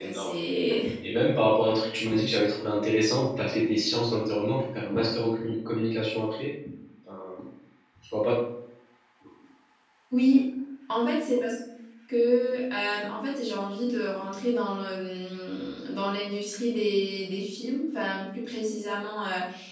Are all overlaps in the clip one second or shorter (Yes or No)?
Yes